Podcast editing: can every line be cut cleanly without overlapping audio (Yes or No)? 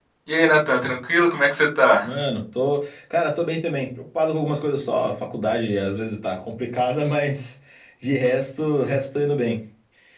Yes